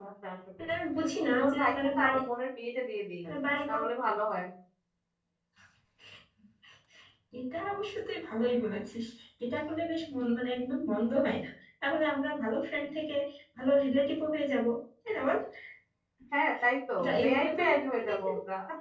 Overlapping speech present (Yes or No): Yes